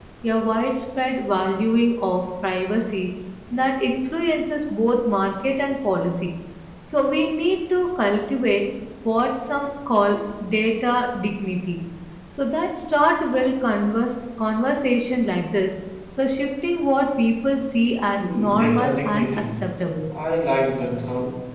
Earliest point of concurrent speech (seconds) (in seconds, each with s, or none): 18.2 s